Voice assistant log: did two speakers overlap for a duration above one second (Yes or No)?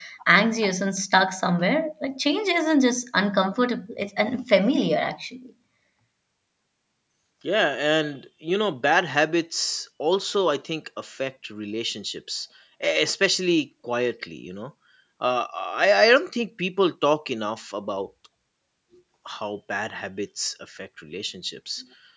No